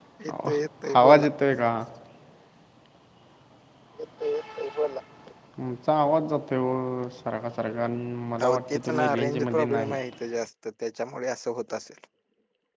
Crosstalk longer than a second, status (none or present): present